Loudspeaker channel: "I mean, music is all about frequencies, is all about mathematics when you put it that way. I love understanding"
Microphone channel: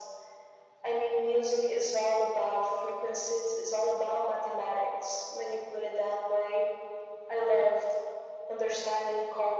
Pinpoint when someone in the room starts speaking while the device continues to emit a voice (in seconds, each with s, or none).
none